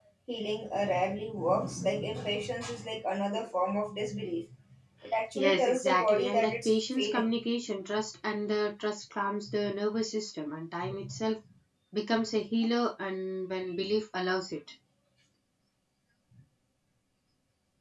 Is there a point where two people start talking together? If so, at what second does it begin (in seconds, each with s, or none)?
5.4 s